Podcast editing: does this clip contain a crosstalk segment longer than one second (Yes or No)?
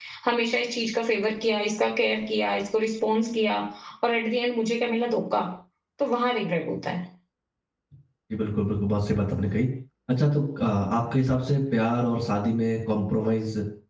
No